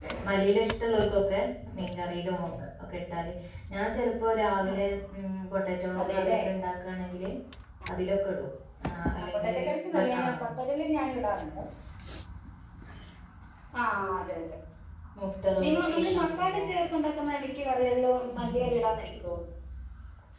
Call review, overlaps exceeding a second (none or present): present